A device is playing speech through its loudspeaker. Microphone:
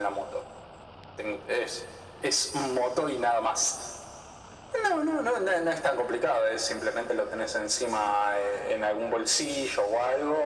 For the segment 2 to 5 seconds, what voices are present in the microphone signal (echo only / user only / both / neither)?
echo only